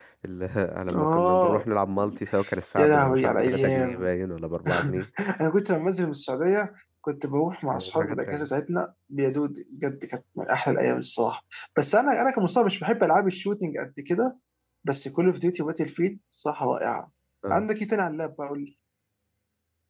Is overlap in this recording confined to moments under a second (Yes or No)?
No